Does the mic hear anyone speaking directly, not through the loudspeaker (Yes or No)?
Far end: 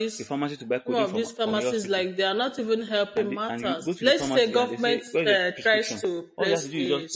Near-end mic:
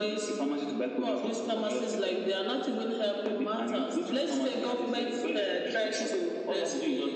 No